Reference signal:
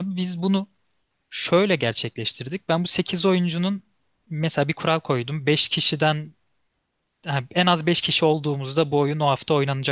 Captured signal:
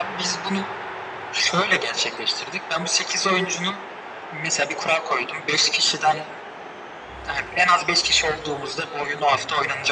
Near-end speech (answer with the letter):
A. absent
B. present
A